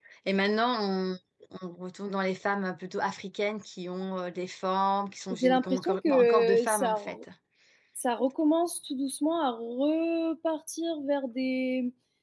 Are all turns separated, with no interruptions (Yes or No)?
No